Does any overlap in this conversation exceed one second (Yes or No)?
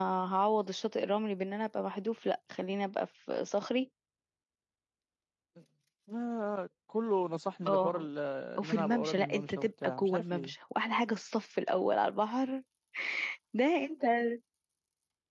Yes